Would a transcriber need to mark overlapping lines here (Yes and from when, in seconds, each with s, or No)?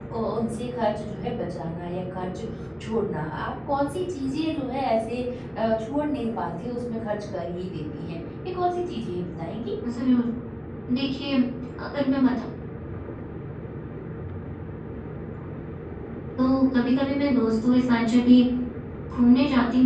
No